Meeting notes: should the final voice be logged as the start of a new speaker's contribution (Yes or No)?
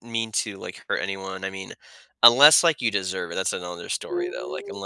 Yes